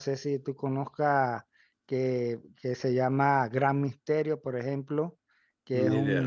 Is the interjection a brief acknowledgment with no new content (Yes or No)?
Yes